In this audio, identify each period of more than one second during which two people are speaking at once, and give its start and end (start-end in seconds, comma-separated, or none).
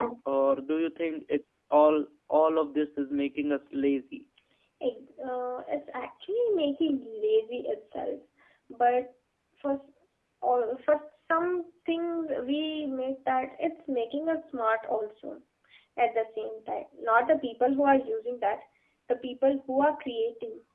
none